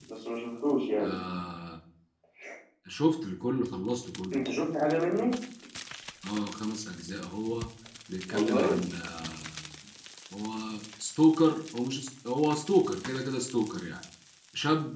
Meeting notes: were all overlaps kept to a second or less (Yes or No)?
Yes